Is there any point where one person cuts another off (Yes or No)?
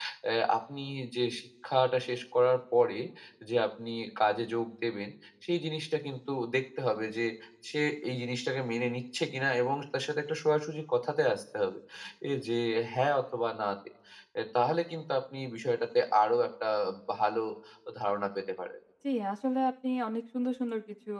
No